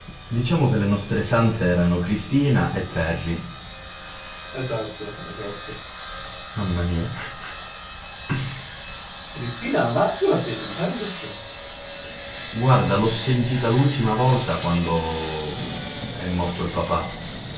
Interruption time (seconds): none

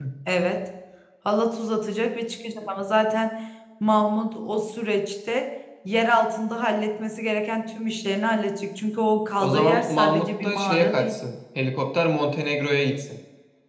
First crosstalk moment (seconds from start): 9 s

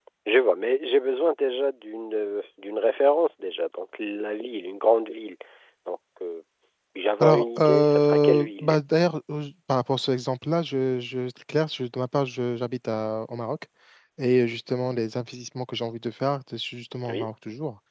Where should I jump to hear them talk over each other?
7 s

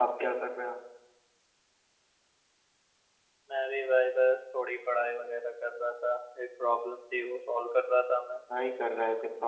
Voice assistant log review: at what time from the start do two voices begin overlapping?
none

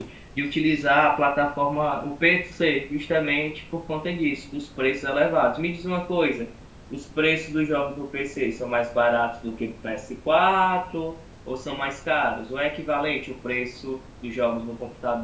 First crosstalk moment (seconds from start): none

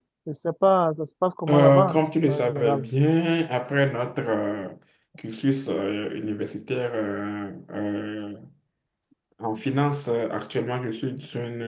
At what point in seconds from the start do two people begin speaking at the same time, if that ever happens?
1 s

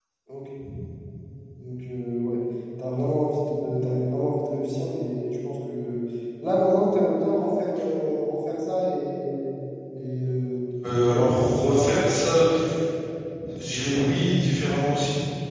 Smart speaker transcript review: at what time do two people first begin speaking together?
11 s

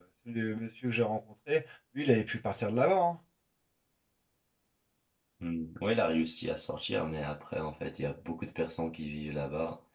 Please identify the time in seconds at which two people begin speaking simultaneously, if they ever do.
none

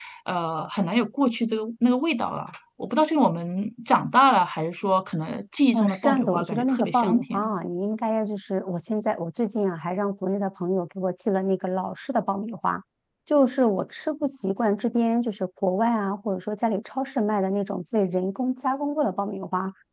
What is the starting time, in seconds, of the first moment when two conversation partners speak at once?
6 s

